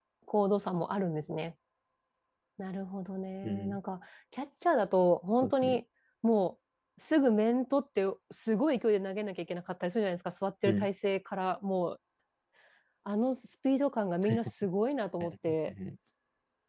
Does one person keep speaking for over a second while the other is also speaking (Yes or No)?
No